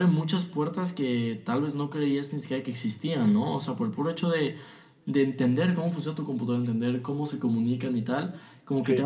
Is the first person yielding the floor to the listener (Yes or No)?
No